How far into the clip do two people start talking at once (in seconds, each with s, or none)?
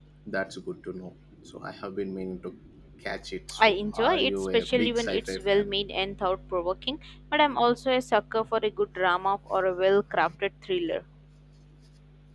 3.6 s